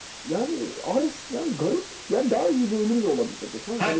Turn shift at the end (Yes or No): Yes